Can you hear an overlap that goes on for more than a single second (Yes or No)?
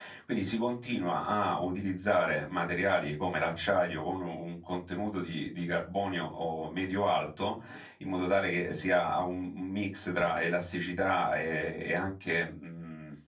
No